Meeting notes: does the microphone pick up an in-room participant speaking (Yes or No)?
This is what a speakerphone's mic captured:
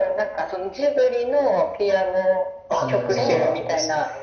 Yes